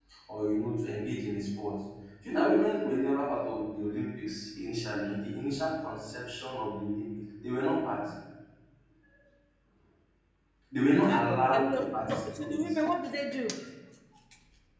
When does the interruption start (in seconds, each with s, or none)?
11.1 s